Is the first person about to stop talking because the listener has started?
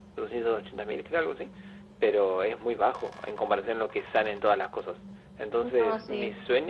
No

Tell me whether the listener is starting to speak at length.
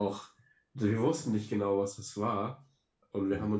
No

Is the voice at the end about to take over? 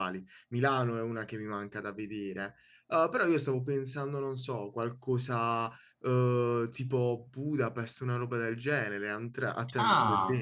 Yes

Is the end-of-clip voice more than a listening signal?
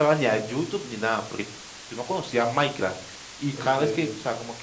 No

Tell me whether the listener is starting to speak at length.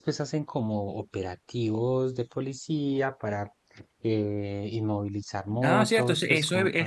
Yes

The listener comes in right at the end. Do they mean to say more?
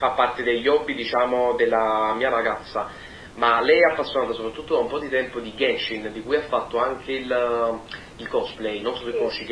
Yes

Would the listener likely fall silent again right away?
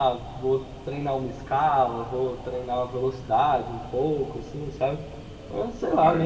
Yes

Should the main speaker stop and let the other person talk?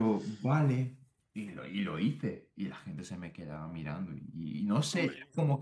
No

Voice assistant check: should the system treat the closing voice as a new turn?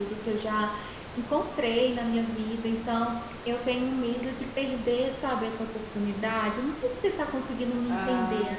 Yes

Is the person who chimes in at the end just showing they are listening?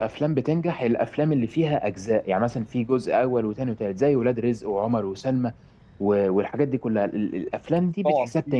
Yes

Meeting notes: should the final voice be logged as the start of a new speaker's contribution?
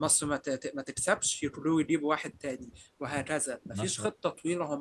No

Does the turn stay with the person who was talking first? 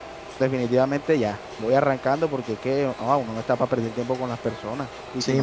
No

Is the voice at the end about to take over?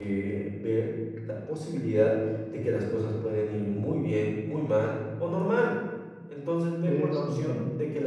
No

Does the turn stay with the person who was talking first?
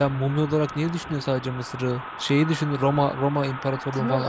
No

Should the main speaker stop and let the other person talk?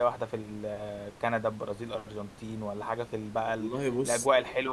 No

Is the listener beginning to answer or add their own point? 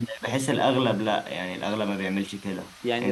Yes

